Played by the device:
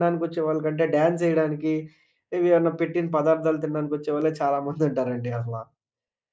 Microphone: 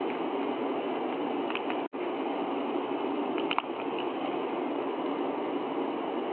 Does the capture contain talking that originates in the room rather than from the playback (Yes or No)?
No